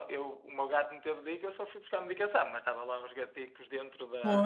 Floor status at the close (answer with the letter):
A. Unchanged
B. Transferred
A